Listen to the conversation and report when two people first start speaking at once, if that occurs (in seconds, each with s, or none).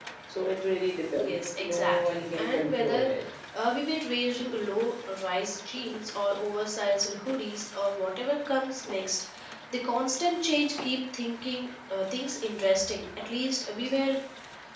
1.1 s